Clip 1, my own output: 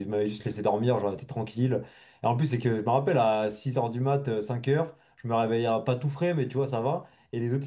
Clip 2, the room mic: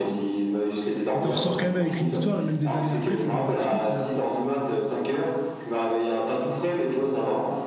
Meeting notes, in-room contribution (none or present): present